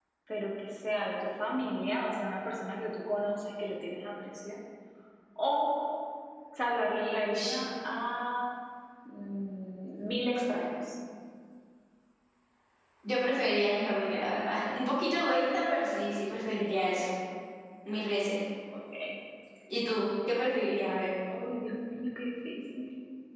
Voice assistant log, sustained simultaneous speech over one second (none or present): none